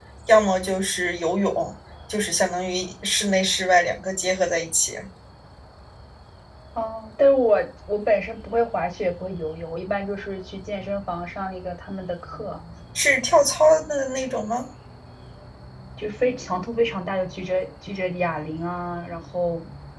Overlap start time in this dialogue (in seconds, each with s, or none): none